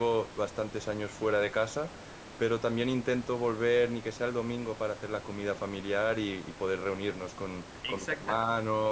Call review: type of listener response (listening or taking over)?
listening